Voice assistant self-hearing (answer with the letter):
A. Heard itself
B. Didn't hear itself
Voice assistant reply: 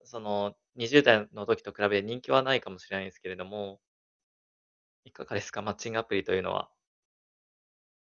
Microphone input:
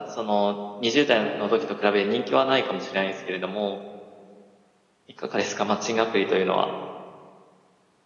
A